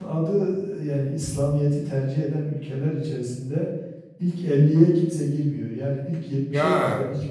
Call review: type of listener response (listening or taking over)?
listening